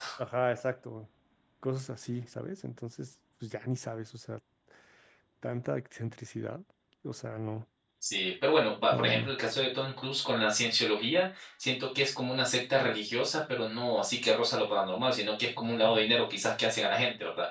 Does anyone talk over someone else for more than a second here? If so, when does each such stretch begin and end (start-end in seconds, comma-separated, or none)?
none